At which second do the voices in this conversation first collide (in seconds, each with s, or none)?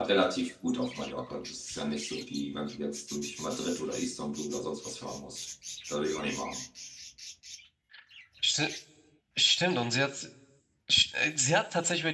none